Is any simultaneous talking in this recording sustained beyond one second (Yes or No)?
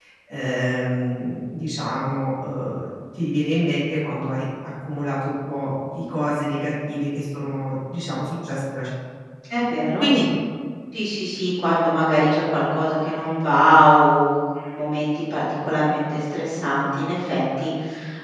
No